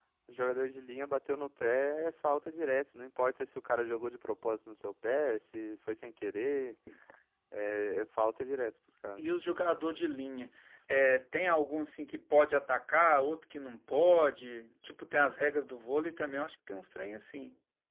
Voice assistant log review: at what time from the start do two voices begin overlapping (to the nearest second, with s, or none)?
none